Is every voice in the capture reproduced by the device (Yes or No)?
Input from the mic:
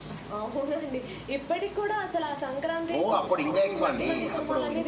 No